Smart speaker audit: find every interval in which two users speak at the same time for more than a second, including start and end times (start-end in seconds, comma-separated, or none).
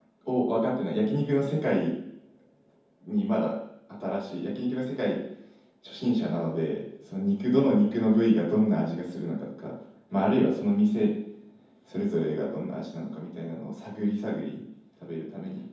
none